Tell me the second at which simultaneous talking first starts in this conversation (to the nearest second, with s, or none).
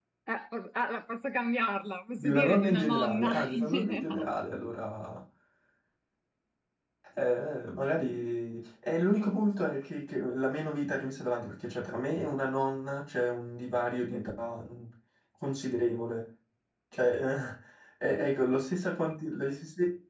2 s